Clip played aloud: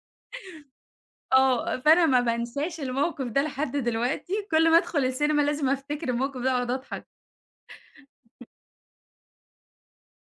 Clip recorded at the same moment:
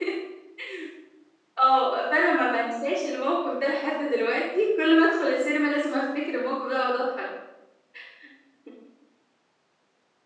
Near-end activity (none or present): none